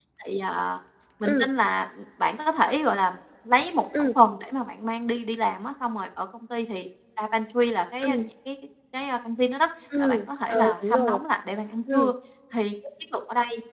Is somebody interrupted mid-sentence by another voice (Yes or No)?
Yes